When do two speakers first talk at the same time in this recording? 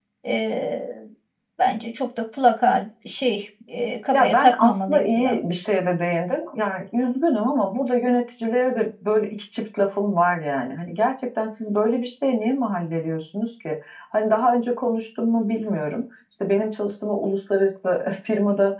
4.1 s

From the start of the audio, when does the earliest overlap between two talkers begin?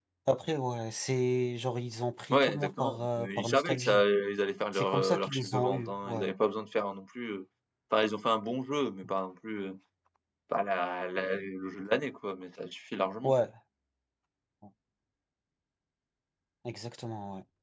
2.3 s

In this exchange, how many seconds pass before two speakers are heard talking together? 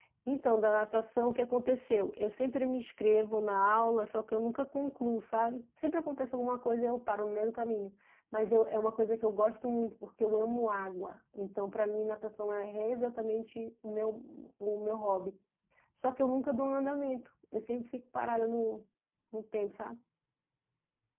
none

